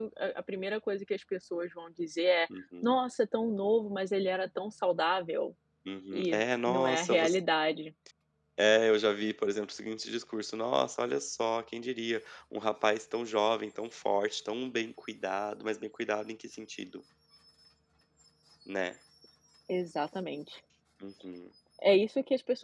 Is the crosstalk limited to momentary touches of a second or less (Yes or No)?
No